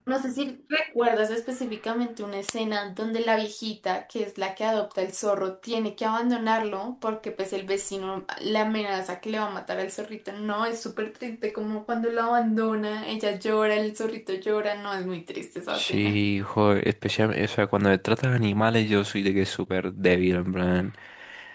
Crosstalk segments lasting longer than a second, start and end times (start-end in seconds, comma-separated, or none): none